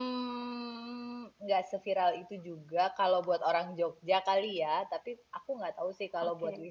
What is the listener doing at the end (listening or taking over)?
listening